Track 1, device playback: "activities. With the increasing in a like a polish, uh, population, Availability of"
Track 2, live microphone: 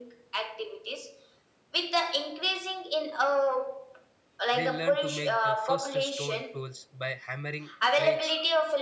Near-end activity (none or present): present